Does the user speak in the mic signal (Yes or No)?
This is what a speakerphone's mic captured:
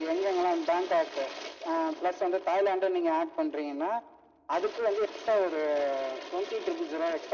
No